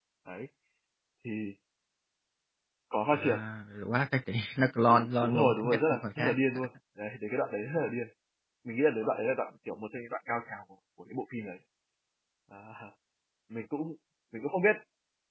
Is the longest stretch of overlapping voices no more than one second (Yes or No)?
No